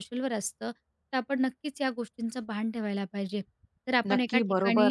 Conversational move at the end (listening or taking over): taking over